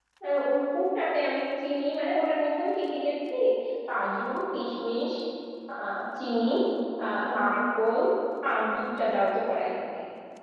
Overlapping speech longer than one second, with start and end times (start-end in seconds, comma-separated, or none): none